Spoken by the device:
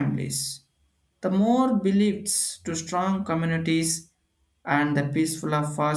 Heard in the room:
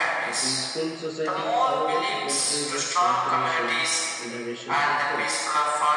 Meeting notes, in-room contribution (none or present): present